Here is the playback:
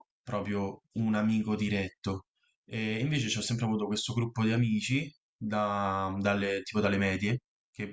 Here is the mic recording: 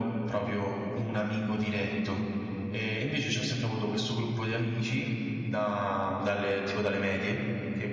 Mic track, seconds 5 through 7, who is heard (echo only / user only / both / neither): echo only